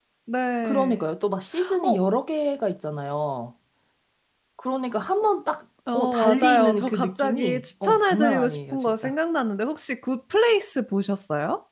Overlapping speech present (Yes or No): Yes